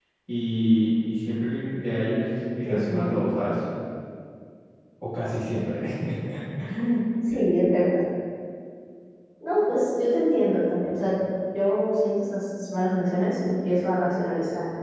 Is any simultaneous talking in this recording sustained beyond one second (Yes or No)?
No